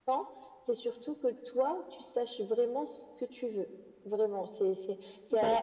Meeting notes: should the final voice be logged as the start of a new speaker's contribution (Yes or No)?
No